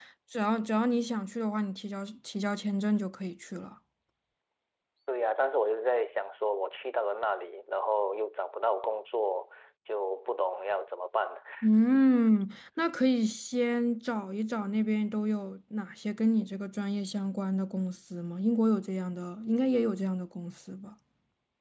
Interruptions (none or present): none